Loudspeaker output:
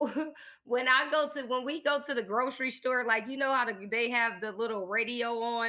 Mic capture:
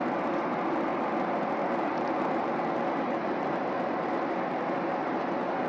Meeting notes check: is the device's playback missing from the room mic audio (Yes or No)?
Yes